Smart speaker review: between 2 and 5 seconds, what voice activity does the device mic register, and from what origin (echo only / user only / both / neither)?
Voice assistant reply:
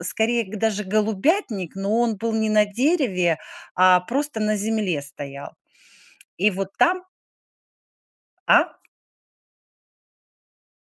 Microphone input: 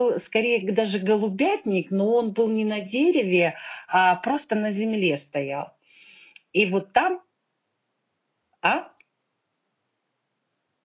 echo only